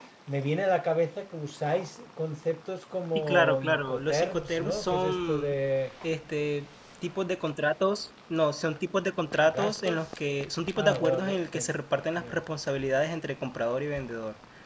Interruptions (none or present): present